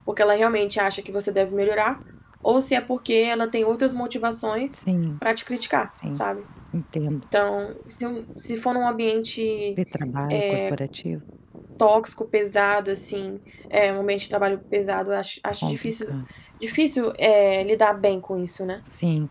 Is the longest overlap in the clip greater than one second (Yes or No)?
No